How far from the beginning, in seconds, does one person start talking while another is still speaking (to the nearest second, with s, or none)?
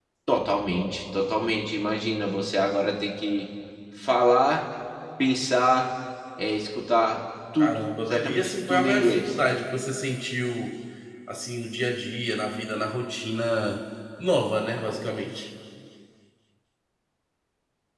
8 s